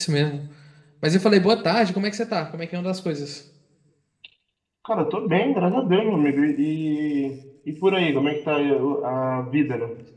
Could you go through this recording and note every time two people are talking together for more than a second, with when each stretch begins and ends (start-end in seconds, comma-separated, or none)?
none